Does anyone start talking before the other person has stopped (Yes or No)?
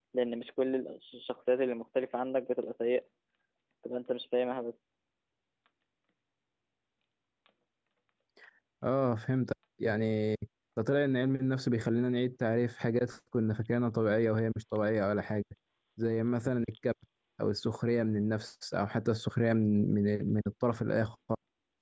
No